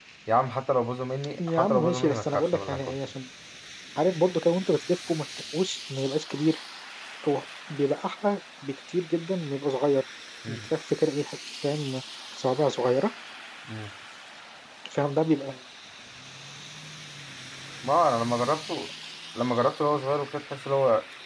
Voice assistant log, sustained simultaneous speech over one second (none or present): present